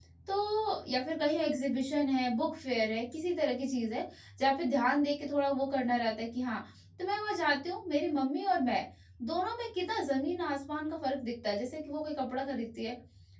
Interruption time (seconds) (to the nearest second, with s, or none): none